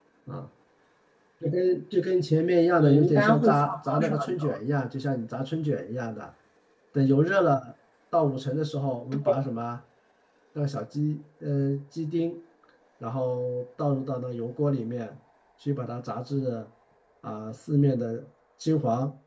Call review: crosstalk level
present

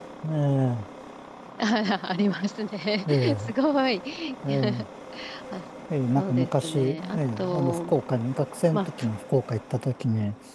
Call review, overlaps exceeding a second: present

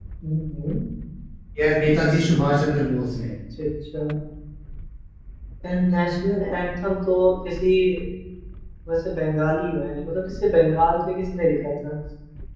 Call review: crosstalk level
none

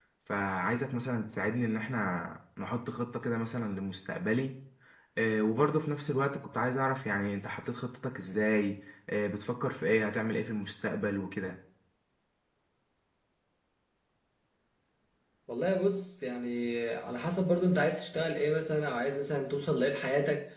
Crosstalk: none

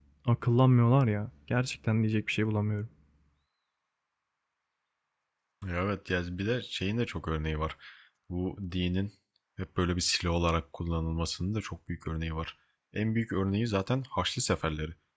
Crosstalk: none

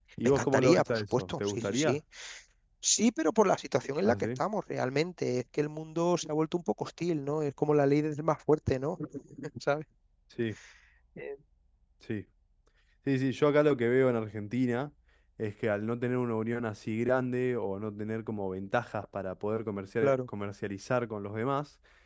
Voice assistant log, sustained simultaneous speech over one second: present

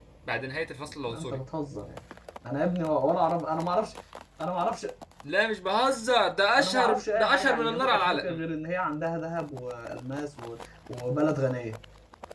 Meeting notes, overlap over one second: present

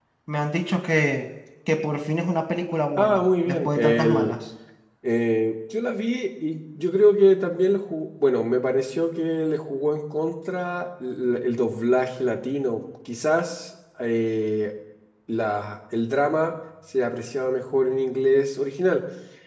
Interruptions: present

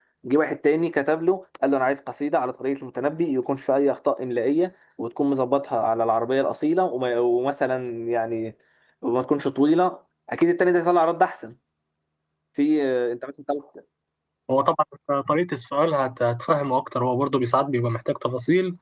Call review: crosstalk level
none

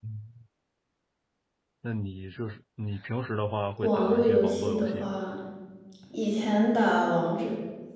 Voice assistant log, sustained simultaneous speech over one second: present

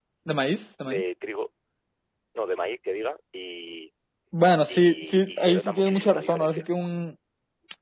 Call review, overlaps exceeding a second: present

